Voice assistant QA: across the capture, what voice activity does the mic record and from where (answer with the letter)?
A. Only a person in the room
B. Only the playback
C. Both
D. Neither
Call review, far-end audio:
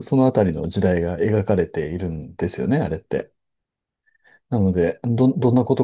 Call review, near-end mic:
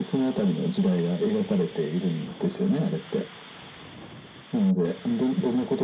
B